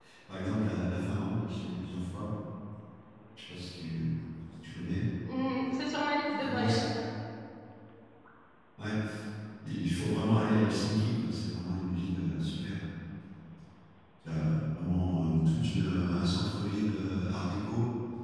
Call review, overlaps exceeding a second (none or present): none